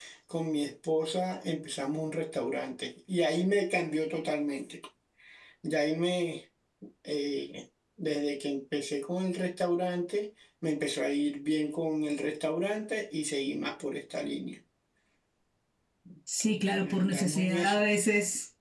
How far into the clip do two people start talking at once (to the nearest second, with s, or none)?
16 s